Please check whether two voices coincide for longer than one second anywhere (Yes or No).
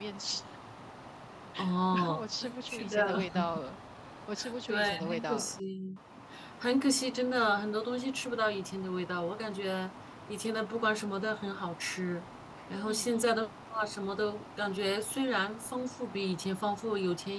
Yes